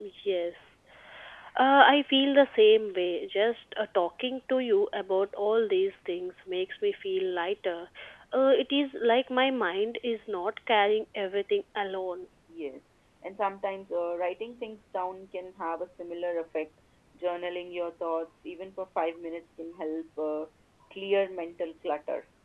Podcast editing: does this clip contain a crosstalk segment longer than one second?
No

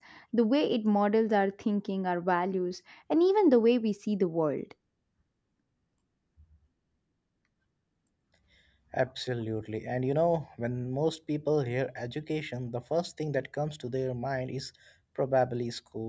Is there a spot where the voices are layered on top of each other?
No

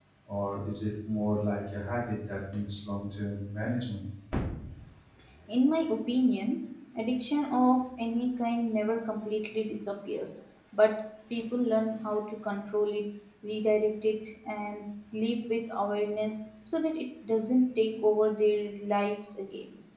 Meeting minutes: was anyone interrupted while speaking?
No

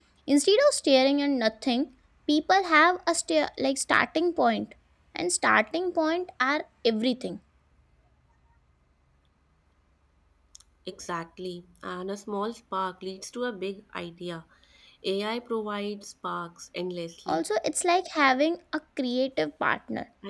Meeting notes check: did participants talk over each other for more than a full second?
No

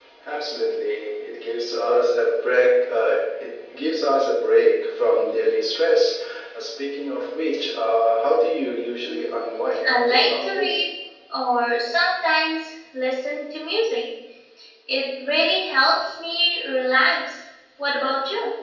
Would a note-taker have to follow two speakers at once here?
Yes, from 9.1 s

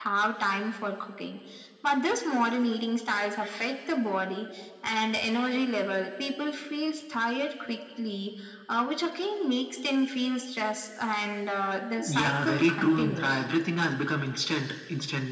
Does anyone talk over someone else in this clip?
Yes, from 12.0 s

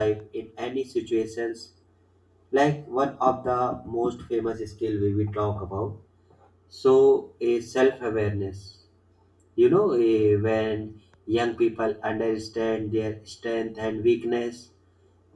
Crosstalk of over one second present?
No

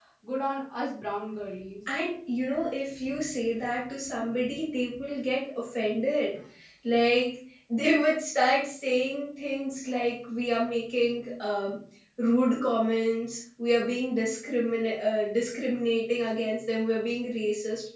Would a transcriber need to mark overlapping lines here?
No

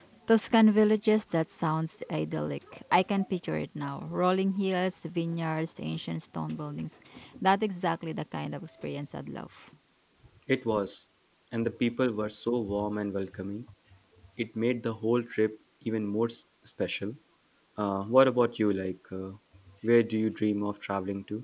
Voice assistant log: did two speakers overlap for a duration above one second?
No

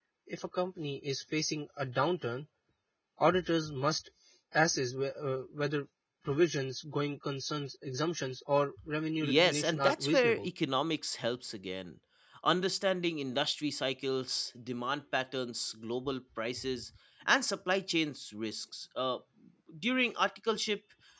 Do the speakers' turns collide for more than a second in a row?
Yes, from 9.2 s

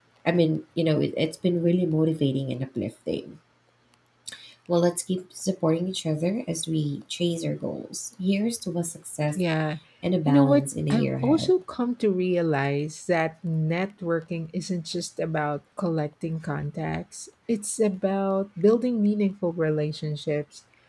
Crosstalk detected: Yes, from 10.3 s

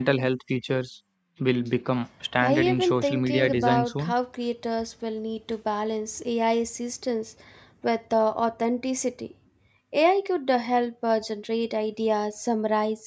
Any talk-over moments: Yes, from 2.4 s

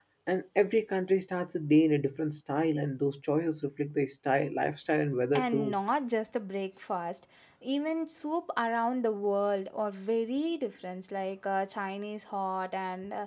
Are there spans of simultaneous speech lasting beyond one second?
No

